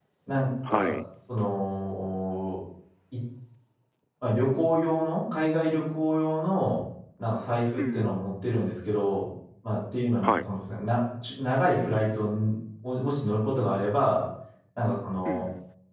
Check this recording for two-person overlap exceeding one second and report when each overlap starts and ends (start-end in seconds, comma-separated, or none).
none